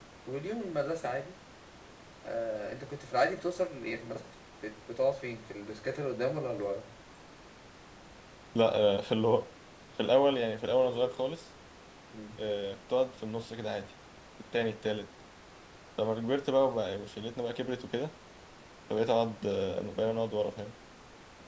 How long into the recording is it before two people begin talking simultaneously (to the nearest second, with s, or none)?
none